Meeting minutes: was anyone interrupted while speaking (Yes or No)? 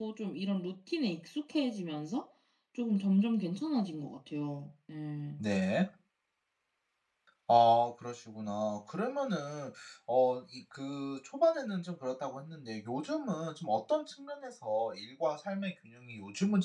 No